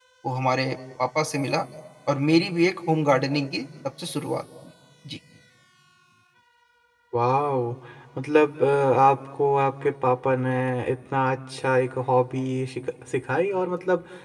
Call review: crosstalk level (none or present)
none